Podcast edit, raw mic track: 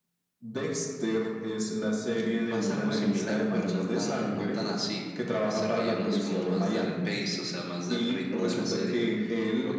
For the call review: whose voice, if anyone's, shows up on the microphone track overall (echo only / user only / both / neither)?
echo only